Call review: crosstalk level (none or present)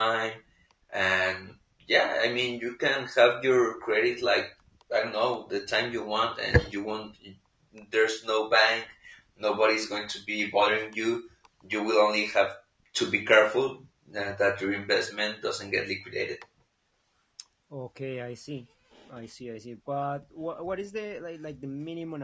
none